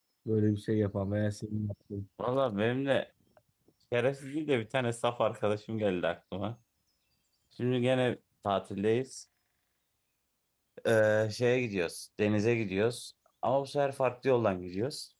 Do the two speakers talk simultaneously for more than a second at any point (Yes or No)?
No